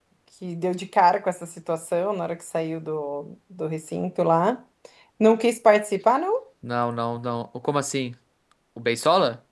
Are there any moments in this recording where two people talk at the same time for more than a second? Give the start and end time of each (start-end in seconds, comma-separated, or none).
none